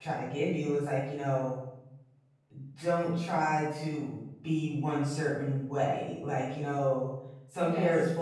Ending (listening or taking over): listening